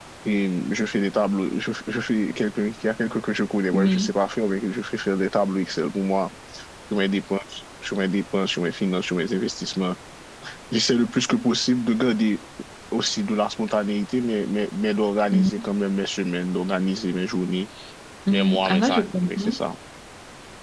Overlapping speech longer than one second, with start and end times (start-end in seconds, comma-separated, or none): 18.3-19.5